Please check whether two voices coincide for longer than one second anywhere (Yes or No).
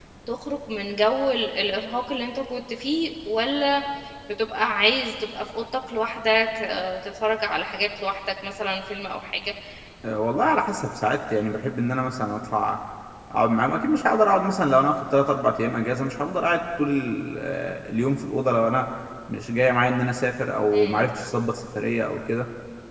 No